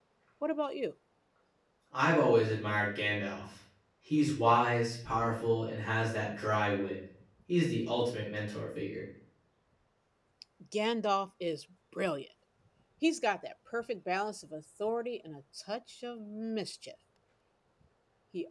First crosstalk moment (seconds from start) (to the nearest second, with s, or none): none